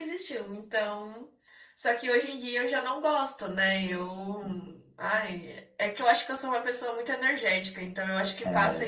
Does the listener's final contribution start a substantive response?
Yes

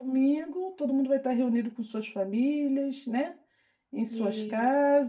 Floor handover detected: No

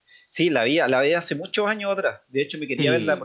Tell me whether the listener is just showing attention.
Yes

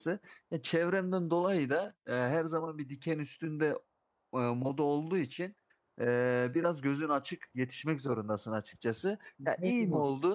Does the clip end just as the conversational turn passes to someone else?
No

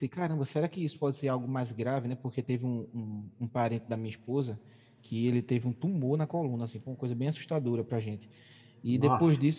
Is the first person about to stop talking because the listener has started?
No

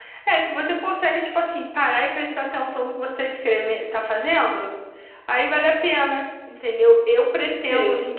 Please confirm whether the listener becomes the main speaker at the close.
No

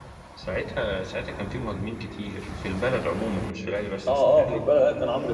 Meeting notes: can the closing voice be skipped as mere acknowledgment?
No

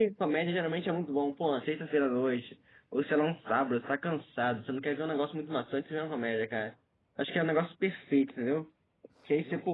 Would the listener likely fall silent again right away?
Yes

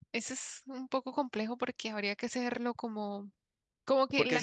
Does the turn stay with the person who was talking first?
No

